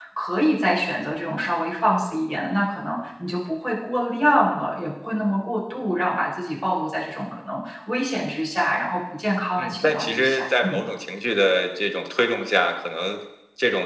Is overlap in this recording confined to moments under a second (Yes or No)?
No